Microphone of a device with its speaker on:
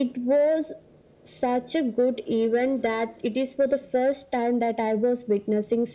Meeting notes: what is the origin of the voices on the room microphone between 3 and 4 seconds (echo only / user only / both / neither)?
echo only